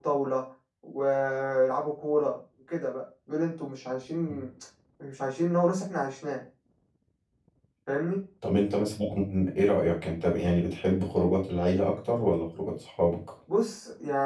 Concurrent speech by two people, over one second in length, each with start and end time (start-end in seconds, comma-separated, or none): none